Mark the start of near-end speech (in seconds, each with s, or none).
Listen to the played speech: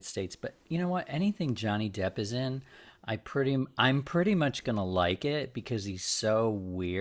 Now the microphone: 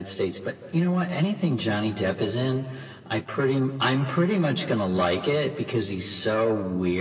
none